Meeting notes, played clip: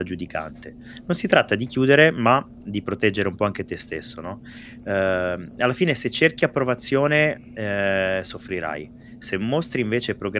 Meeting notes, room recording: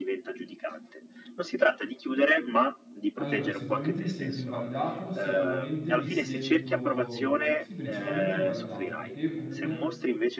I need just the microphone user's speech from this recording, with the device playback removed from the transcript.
Allora, sicuramente mi sento invalidato, sicuramente mi sento sì, principalmente invalidato, perché io comunque

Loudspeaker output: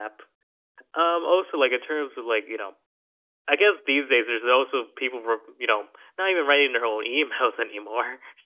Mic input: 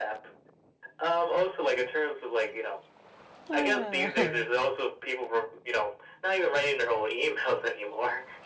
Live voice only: Ah,

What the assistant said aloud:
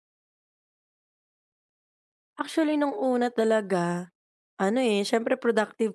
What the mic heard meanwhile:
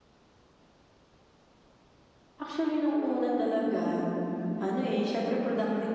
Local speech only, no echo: none

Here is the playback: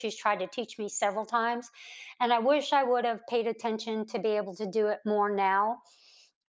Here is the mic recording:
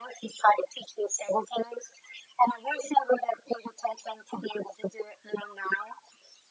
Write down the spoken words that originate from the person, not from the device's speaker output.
none

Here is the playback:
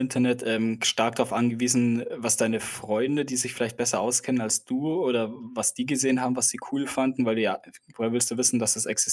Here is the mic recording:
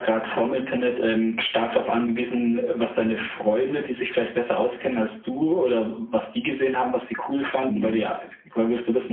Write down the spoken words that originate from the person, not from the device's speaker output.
Mhm.

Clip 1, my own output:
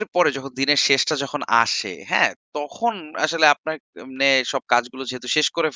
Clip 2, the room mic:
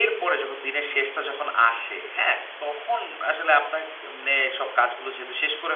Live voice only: none

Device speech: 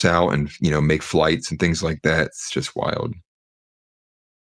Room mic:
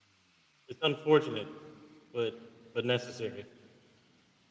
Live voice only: It's unfortunate, but but necessary.

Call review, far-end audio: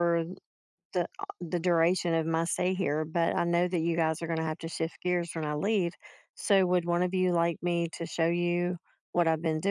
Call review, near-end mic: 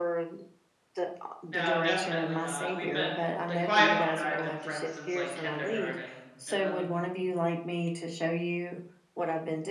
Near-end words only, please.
No, definitely not. We've been the quiet one and I have been friends since like kindergarten. And then

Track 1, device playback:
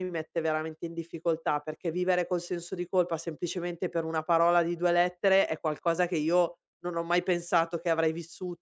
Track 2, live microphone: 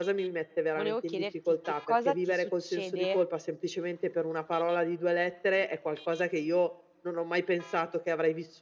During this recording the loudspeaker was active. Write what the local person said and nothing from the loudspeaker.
Volevo chiederti che cosa ti succede

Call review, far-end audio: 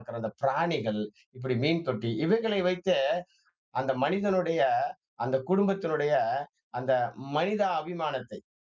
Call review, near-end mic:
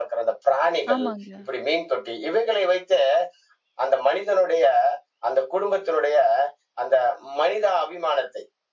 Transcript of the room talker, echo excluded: ஆமாங்க,

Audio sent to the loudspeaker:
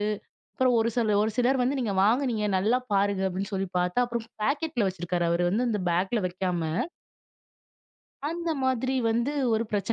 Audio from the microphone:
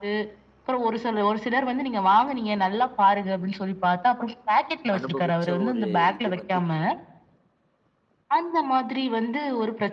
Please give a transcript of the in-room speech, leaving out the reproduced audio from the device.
அனுபவிச்ச ஒரு இது வந்து,

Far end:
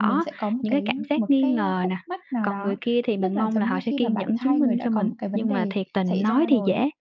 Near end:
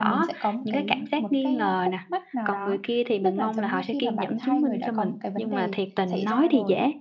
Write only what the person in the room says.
none

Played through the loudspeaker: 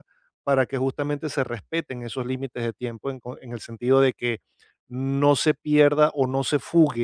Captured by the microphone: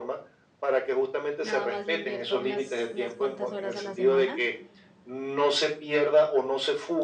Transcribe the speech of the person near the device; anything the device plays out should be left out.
nada más le invierto unas, unas cuantas horas a la semana,

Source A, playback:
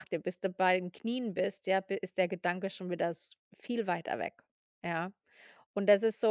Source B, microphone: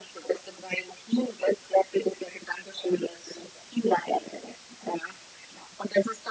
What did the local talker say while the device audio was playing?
none

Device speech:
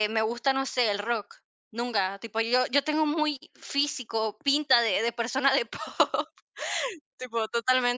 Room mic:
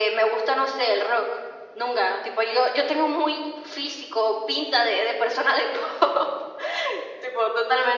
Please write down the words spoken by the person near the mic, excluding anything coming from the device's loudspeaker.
none

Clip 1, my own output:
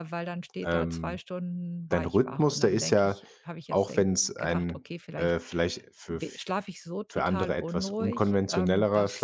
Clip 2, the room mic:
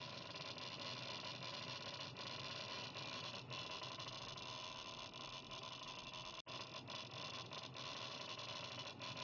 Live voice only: none

